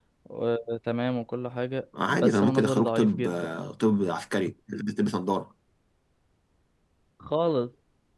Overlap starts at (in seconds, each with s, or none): 1.9 s